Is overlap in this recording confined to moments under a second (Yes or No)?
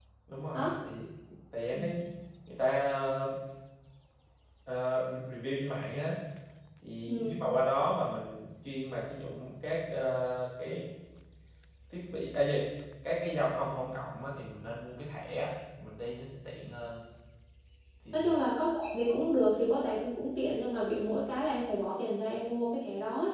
Yes